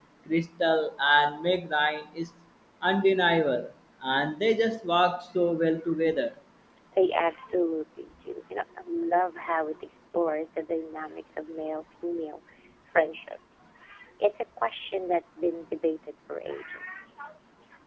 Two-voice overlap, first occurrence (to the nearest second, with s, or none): none